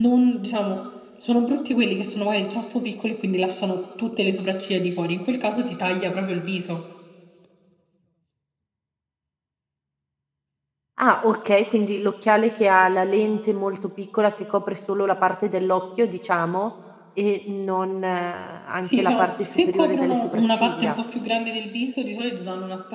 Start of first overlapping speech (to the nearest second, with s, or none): 19 s